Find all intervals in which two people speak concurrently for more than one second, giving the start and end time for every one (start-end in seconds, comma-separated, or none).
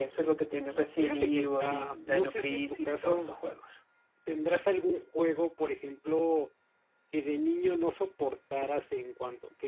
1.0-3.3